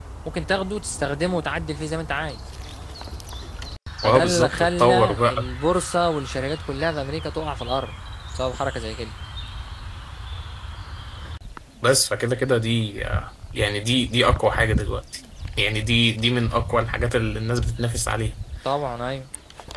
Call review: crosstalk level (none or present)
present